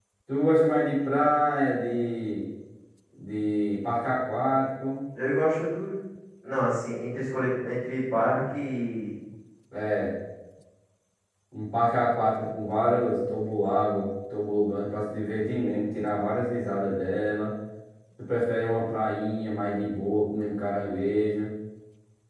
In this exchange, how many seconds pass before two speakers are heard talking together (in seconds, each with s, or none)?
none